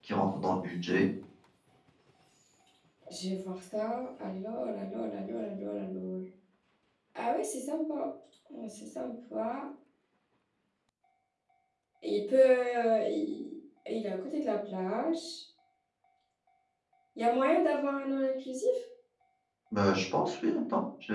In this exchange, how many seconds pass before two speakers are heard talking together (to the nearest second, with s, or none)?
none